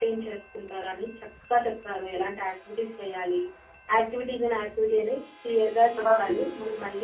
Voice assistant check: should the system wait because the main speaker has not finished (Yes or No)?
Yes